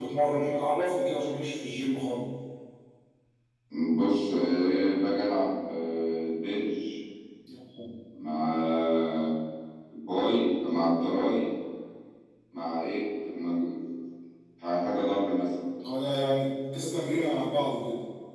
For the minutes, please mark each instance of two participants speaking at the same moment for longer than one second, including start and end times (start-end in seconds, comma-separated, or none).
none